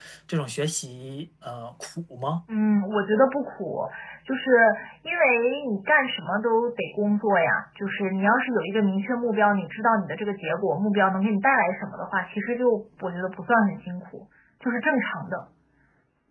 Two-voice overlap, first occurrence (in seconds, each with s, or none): none